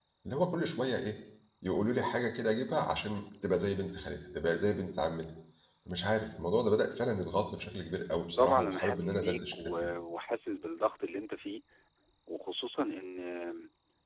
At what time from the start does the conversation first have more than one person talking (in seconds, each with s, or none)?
8.4 s